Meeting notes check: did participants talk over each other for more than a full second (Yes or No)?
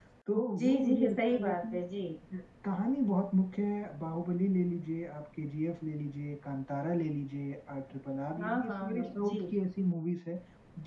Yes